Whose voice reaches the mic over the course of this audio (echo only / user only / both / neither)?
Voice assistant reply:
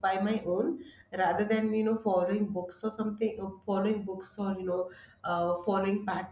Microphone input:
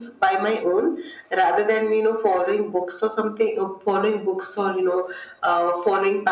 echo only